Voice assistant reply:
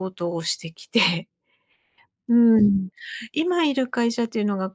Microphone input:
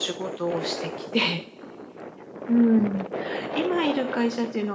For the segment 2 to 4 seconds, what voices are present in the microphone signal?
echo only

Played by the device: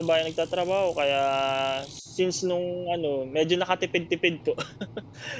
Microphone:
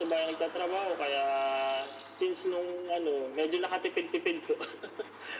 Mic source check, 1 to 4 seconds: echo only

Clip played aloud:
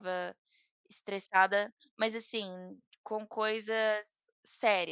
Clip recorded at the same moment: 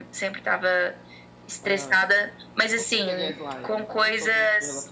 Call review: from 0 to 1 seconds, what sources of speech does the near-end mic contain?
echo only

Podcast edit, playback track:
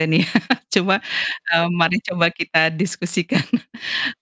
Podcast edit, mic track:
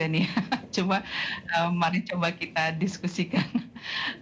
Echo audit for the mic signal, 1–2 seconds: echo only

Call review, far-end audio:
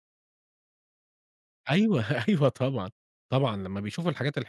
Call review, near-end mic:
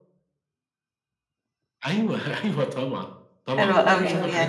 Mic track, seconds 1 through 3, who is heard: echo only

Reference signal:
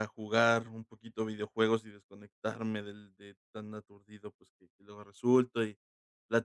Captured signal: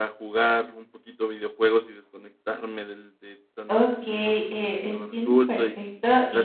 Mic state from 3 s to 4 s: both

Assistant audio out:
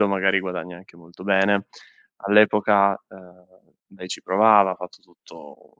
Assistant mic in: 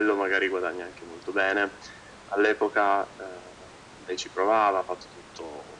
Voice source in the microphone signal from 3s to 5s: echo only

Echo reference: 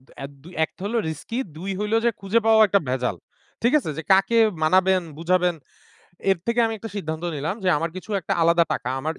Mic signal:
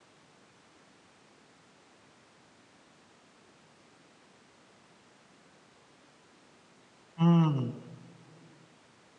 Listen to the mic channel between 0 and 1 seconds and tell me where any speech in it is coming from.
neither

